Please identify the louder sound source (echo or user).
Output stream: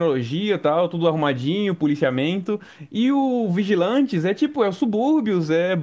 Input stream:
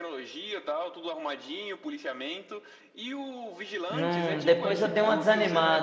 user